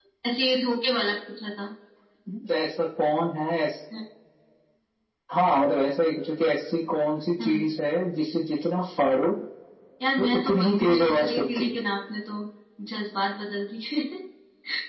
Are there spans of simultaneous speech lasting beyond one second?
Yes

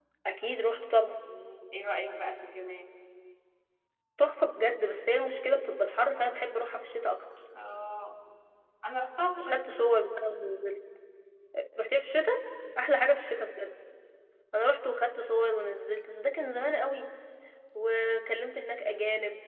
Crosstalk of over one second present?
No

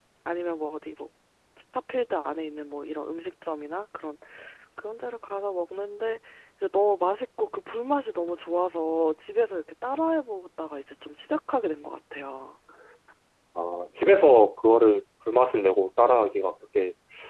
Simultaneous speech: No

